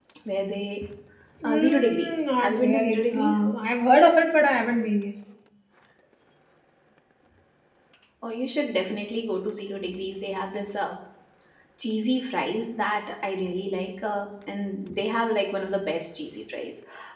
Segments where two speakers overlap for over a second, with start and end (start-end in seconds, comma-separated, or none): 1.4-3.4